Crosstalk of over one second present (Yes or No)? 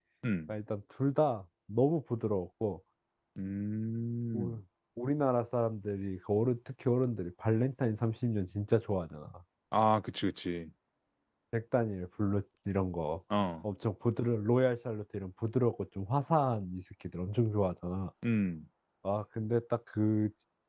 No